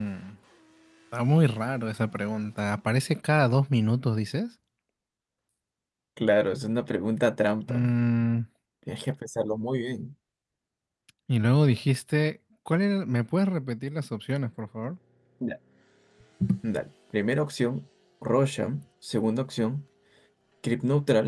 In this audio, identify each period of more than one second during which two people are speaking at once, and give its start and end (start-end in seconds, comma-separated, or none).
none